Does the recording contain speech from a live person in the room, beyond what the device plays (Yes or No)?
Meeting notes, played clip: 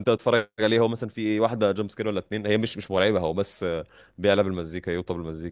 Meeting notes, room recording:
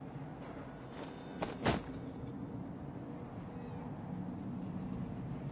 No